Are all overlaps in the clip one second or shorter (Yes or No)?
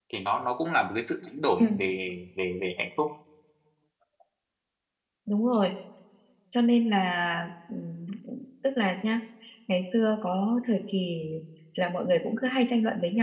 Yes